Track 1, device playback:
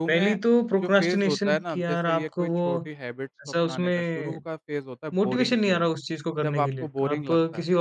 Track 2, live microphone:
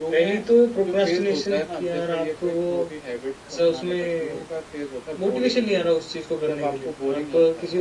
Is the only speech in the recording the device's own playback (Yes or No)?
Yes